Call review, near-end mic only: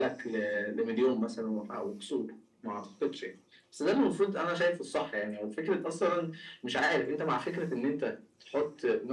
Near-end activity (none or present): none